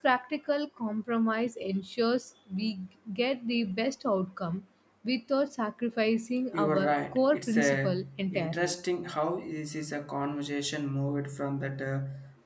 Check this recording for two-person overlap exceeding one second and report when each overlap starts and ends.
6.5-8.8

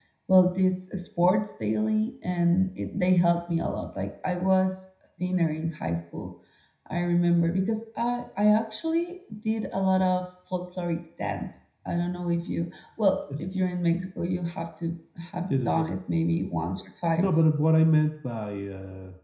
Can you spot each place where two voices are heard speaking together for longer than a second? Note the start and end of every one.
none

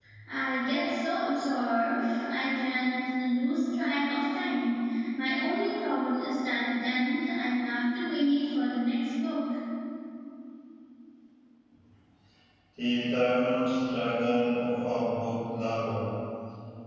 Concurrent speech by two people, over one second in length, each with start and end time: none

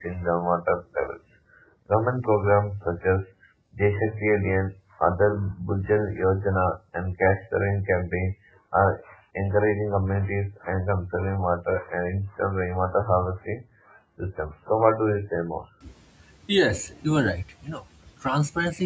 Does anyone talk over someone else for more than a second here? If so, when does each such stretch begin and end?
none

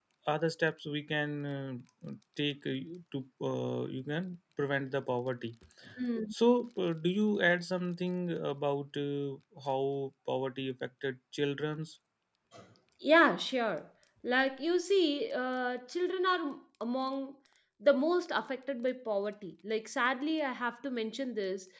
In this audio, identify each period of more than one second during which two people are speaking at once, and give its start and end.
none

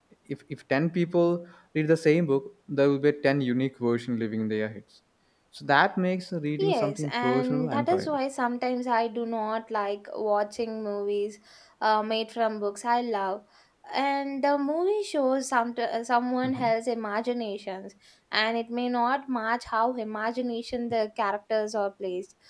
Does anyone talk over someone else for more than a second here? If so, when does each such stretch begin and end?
6.6-8.2

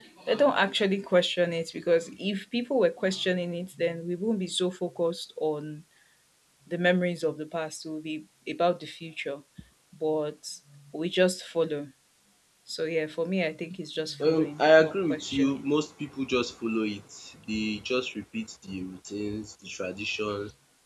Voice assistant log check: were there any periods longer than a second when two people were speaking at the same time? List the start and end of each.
14.2-15.6

